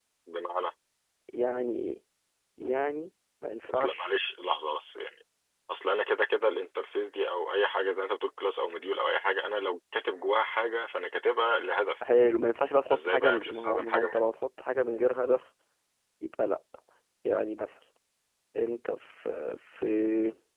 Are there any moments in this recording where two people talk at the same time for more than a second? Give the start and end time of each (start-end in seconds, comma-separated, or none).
12.9-14.2